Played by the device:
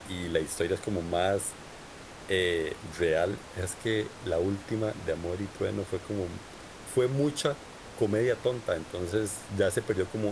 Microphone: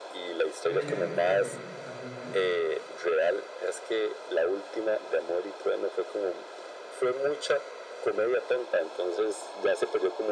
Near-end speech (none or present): present